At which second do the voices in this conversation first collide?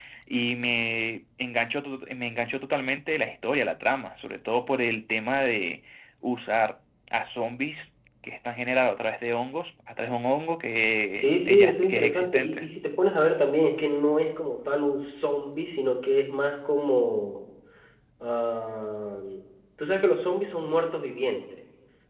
11.2 s

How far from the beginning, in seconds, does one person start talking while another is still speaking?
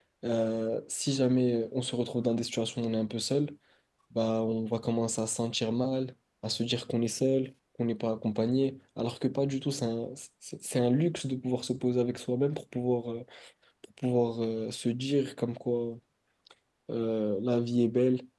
none

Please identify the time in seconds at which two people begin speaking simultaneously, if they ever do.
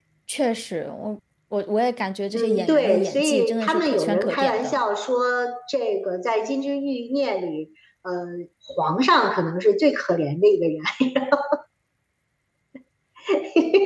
2.3 s

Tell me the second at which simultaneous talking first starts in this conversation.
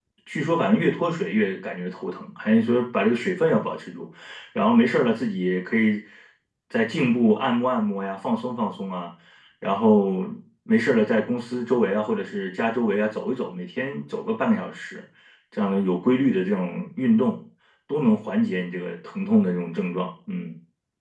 none

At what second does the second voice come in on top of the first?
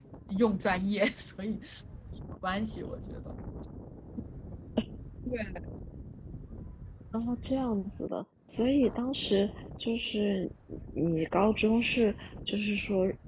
none

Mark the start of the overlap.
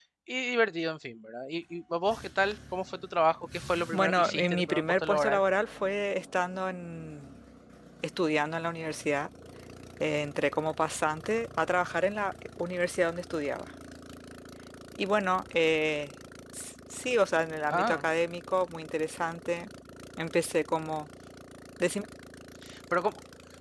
3.9 s

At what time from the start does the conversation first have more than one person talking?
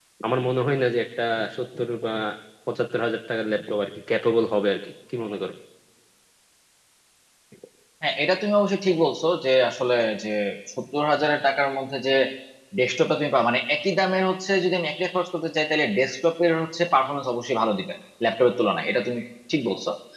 none

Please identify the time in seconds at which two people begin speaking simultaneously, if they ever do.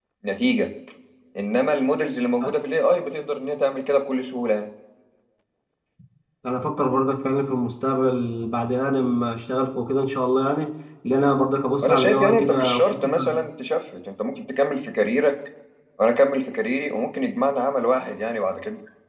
11.8 s

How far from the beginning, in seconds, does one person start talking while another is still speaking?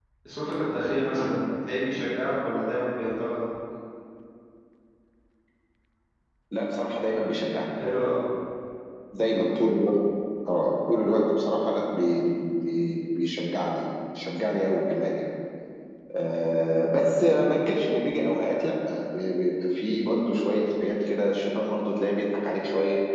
none

